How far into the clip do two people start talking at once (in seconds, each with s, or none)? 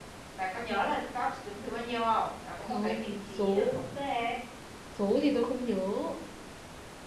2.6 s